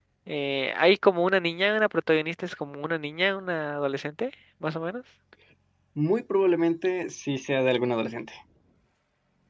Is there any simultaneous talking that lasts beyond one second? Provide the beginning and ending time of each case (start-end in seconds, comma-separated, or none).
none